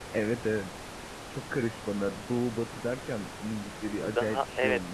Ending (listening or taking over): taking over